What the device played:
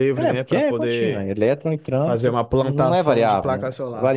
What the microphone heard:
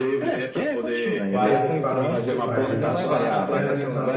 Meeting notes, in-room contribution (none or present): present